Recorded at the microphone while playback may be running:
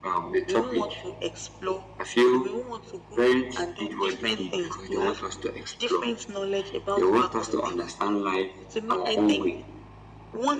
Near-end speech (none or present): none